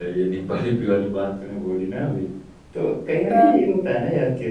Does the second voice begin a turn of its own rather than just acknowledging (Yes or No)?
No